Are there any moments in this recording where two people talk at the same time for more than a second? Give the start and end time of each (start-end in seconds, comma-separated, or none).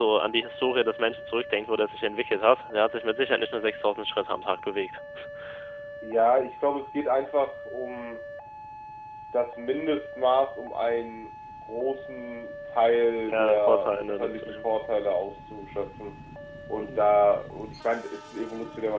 13.3-14.6